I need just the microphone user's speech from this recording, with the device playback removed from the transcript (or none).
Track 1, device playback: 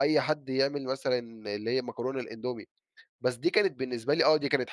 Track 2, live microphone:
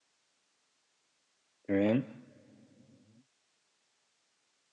تمام.